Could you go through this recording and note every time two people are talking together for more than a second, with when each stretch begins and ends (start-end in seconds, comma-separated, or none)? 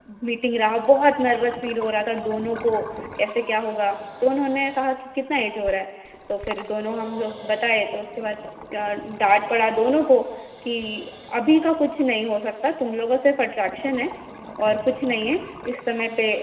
none